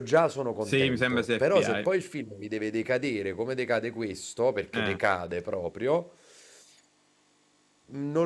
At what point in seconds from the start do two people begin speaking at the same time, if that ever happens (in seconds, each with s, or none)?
0.7 s